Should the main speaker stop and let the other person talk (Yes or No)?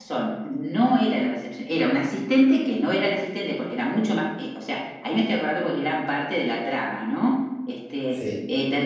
No